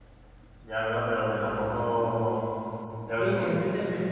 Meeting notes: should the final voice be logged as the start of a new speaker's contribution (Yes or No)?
Yes